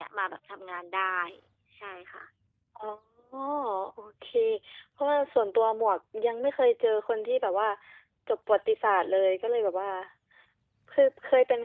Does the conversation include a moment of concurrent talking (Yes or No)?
No